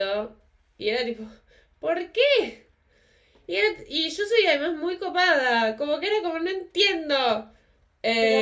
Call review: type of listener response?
taking over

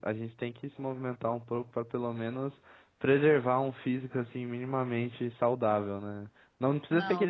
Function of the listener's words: listening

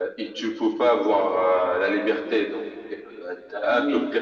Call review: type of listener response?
listening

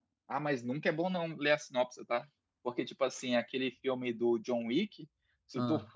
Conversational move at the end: listening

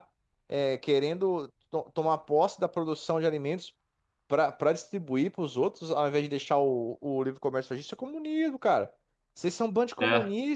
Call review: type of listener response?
listening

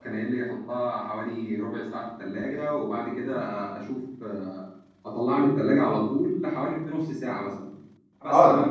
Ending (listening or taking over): listening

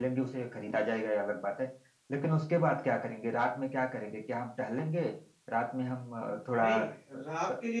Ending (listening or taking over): taking over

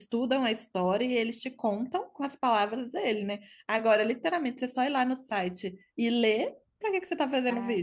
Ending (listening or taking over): taking over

